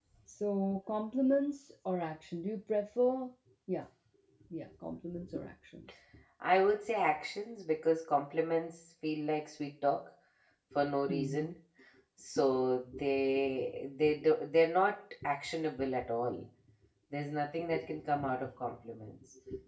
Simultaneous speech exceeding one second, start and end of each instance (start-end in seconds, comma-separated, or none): none